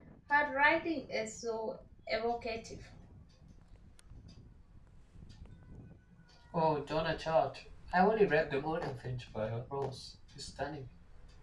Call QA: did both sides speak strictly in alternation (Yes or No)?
Yes